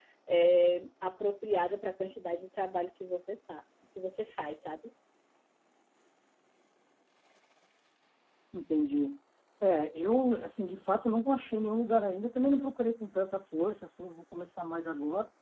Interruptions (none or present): none